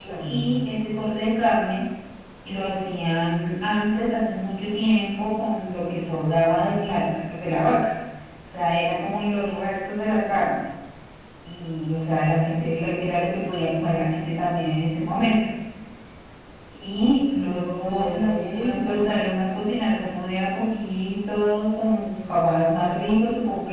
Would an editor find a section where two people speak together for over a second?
Yes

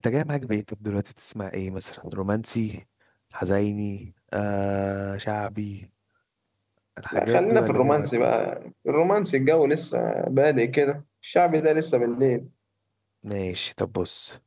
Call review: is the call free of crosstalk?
No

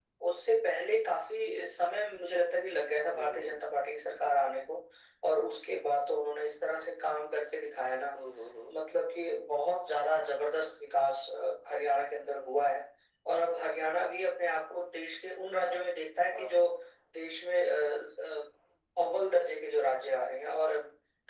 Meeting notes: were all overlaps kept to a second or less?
Yes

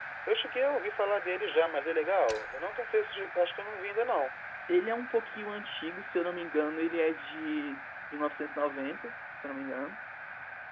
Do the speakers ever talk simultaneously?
No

